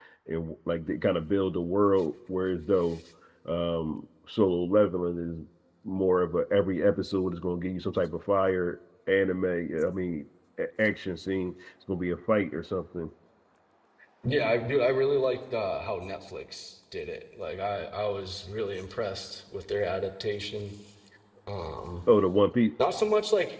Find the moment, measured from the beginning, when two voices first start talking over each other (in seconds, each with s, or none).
none